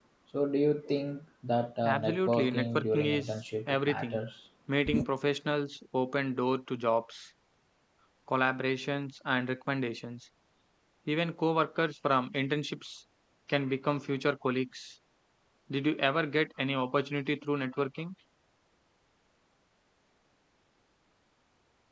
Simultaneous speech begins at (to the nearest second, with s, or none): 2 s